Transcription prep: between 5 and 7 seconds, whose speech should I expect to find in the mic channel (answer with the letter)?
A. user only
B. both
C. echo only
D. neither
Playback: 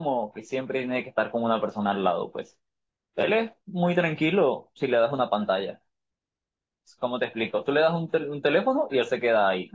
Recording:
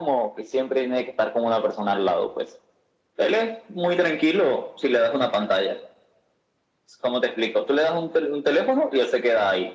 C